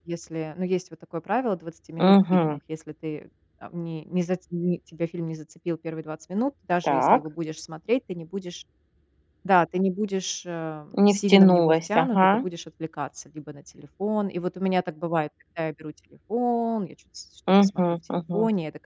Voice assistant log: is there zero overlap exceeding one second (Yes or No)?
No